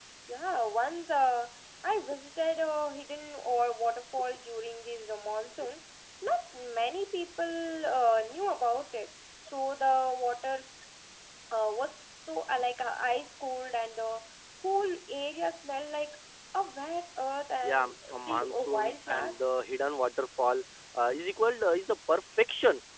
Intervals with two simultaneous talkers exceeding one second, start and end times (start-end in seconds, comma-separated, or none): 17.6-19.4